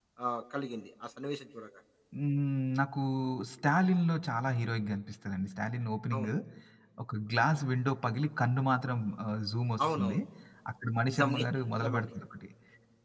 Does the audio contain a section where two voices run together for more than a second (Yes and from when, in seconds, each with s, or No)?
No